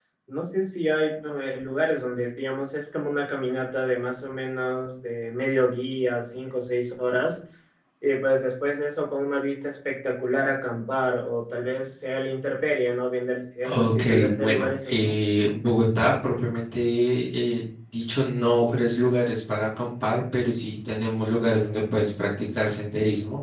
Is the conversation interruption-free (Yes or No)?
No